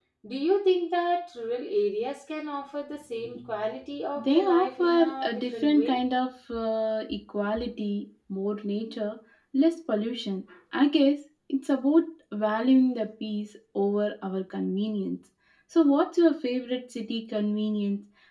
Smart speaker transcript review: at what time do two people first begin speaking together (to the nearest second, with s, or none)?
4 s